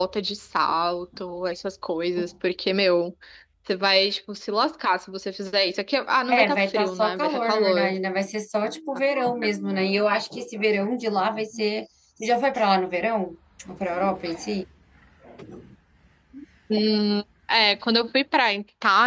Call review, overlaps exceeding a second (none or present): present